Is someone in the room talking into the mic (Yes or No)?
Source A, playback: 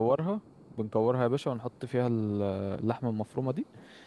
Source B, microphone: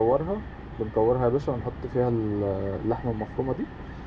No